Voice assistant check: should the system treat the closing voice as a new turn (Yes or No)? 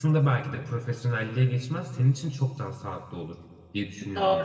Yes